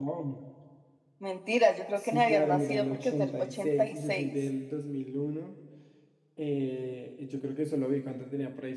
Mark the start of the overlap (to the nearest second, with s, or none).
2 s